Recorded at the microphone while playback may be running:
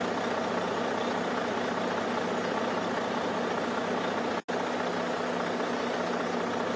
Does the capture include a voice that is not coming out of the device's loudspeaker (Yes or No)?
No